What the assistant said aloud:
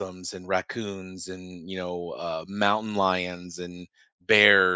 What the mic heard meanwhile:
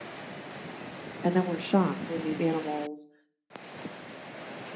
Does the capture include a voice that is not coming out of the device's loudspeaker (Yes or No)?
Yes